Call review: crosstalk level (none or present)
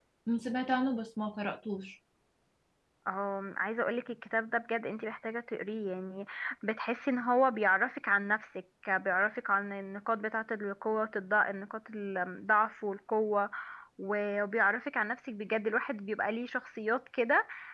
none